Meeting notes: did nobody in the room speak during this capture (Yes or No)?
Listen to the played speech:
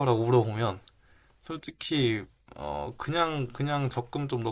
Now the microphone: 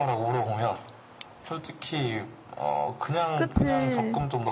No